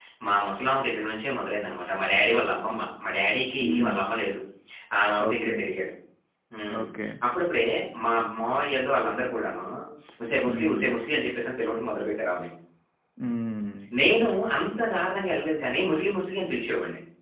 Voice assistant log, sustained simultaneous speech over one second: none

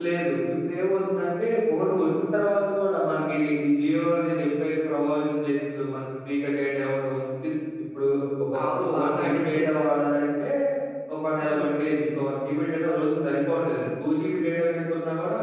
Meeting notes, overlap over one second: present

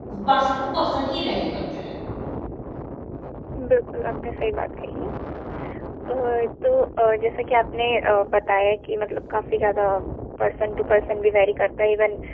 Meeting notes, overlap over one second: none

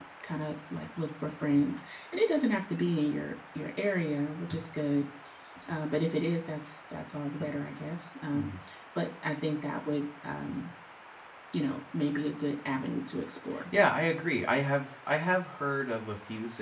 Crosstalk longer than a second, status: none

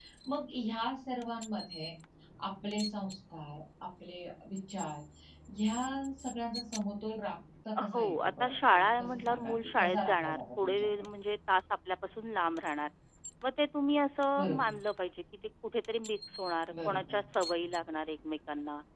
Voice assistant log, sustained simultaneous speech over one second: present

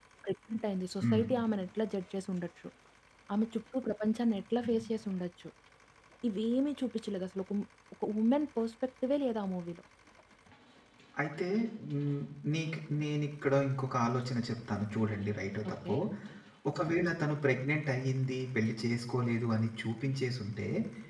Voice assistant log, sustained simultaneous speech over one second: none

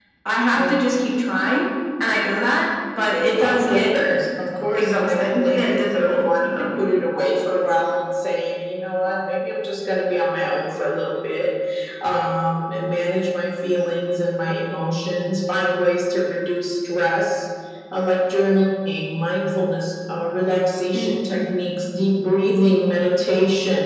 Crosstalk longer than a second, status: present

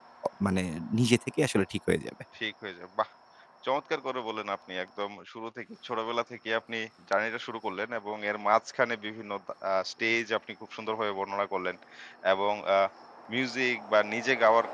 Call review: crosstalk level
none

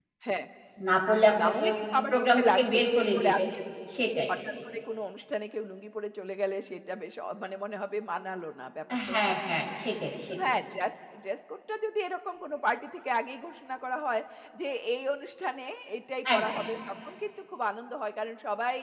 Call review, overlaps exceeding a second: present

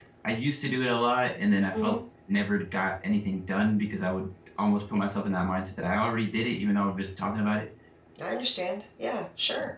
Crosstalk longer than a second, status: none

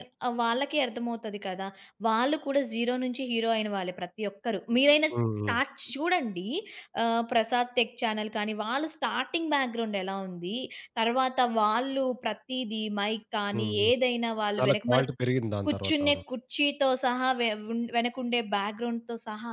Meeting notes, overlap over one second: none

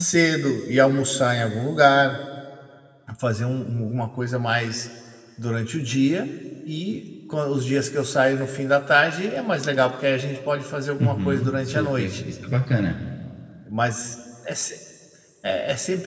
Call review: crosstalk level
present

